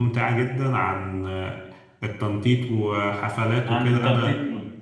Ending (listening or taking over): listening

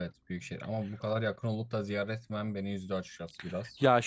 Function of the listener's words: taking over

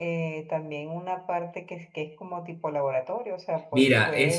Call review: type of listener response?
taking over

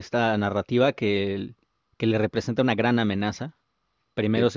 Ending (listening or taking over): listening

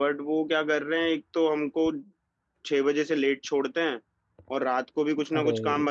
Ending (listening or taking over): listening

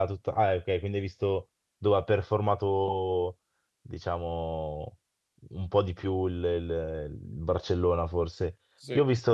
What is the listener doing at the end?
listening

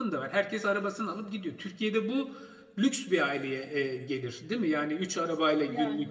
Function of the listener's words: listening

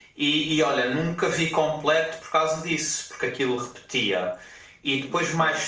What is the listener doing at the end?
listening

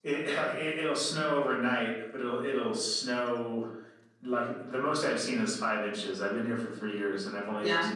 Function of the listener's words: listening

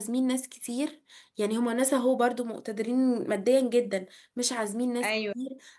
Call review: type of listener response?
listening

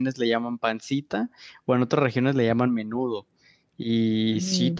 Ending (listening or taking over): listening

